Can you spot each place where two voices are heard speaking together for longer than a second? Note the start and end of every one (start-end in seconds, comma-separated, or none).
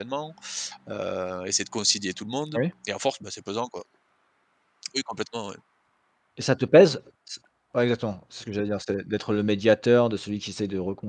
none